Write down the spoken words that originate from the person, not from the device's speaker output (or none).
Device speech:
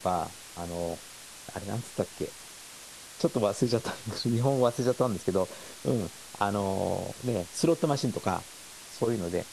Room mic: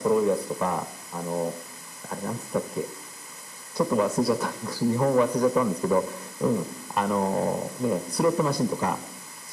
none